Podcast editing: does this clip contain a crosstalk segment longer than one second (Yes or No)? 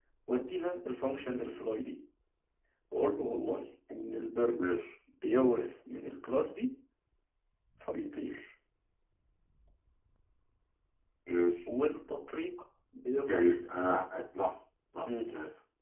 No